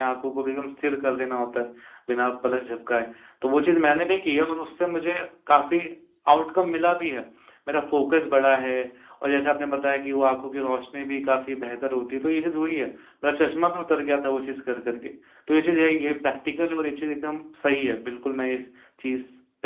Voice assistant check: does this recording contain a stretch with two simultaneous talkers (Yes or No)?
No